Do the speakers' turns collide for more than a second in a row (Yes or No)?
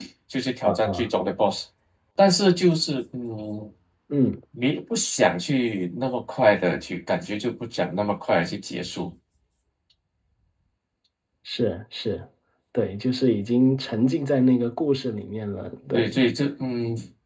No